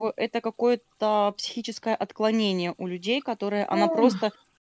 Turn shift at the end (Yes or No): No